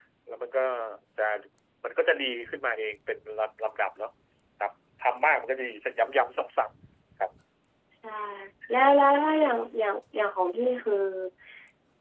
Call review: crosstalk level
none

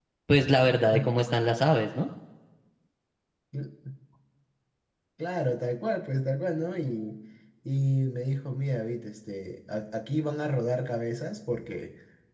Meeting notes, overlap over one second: none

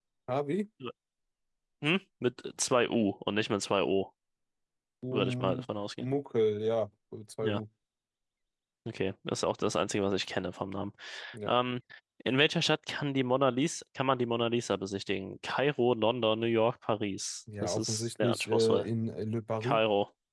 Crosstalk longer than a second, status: present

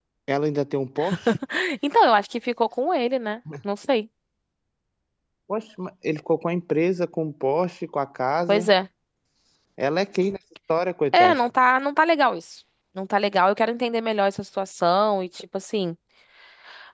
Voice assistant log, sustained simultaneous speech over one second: none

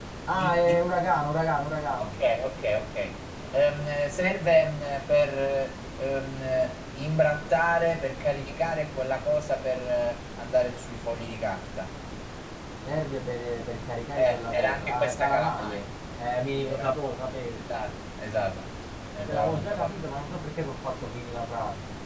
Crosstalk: present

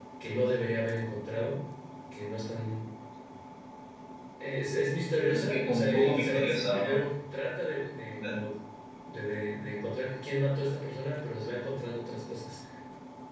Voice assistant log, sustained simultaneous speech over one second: present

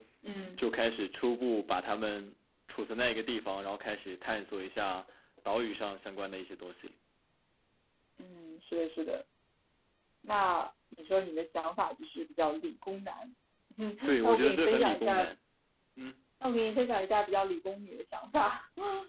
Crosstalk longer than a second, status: present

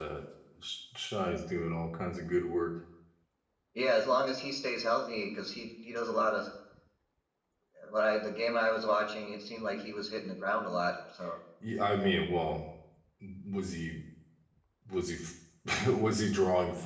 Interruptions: none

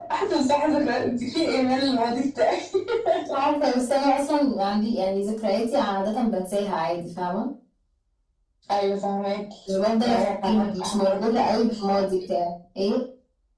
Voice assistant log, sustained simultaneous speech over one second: present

